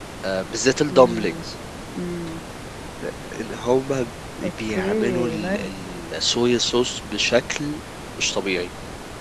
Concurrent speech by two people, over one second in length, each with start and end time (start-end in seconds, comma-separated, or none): 4.4-5.7